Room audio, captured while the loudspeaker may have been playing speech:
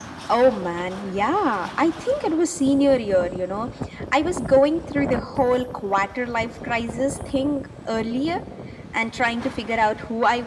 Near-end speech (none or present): none